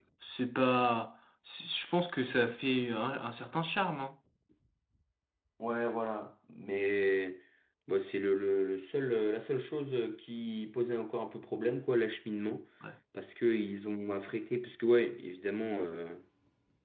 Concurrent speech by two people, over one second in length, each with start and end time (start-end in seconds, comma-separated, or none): none